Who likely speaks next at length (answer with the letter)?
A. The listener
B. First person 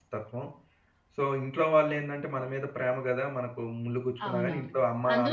A